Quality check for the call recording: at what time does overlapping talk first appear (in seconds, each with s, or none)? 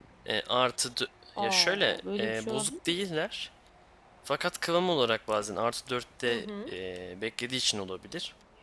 1.4 s